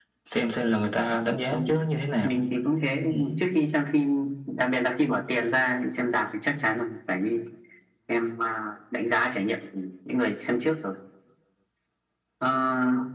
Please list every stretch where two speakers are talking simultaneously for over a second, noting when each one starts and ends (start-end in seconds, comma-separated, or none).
none